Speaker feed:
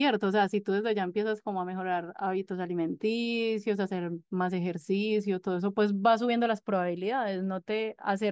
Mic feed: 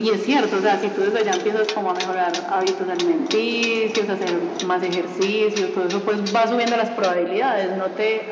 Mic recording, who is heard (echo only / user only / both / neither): echo only